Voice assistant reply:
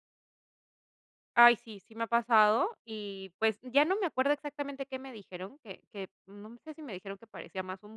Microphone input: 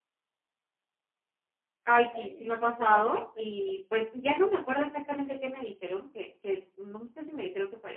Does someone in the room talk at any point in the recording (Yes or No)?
Yes